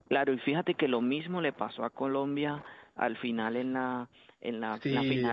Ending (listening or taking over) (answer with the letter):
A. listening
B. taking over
A